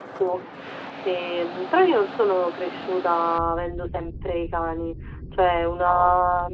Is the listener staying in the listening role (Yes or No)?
Yes